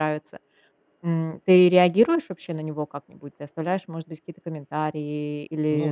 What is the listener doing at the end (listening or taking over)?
taking over